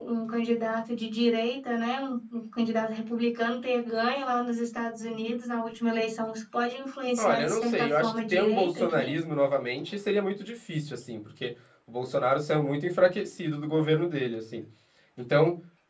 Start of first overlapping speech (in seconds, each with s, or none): 7.2 s